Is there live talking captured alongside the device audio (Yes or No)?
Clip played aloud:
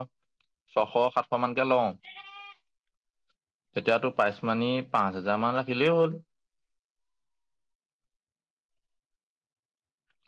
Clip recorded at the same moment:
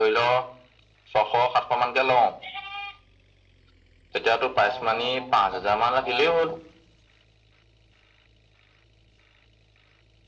Yes